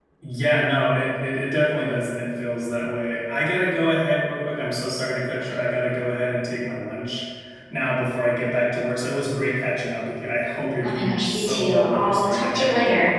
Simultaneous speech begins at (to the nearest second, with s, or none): 11 s